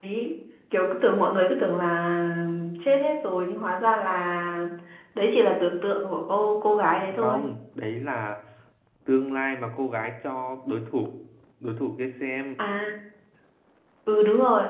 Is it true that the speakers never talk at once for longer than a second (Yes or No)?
Yes